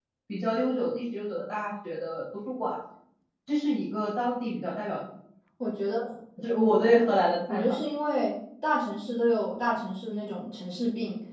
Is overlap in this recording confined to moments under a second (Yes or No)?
Yes